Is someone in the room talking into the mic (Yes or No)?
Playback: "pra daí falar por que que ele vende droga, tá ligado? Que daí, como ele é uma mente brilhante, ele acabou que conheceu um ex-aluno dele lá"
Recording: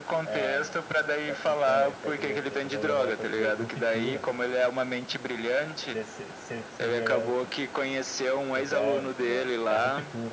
Yes